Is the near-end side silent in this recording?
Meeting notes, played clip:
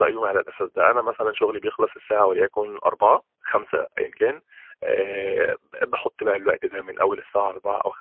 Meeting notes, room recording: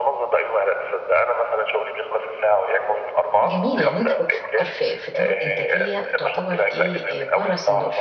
No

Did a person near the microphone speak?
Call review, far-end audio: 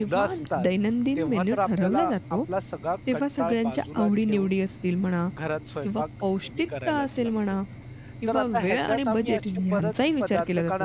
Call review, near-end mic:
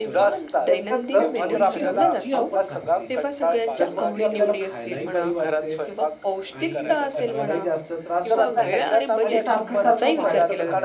Yes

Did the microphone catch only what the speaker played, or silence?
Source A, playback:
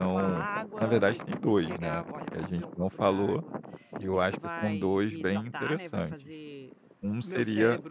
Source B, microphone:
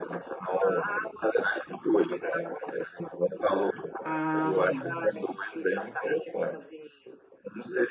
No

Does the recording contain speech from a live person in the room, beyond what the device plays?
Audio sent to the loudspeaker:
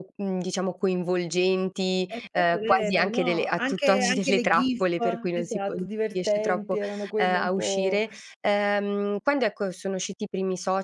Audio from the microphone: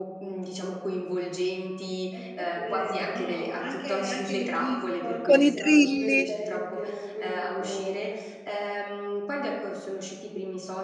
Yes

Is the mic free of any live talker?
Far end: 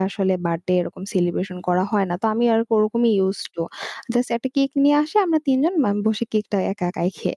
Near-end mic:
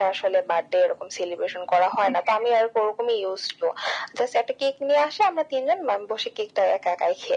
No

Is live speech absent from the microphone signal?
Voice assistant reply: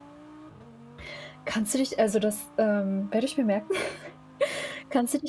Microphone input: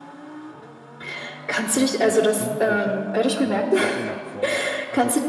No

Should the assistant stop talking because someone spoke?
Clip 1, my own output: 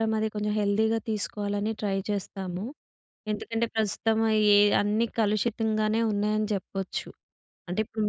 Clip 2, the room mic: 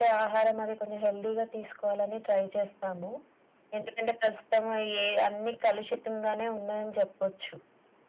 No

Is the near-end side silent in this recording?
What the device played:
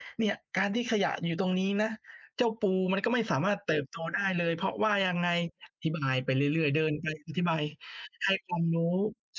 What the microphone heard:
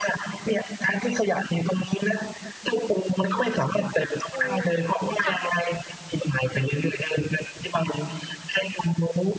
No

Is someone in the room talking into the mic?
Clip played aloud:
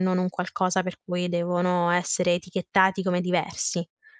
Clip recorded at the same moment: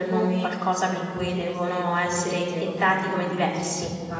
Yes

